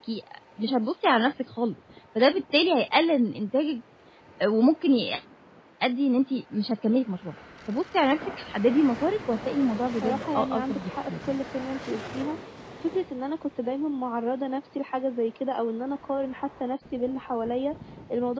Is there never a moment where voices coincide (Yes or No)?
No